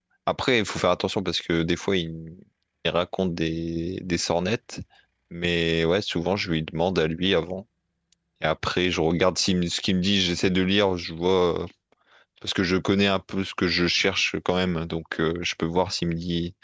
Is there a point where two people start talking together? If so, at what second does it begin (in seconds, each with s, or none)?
none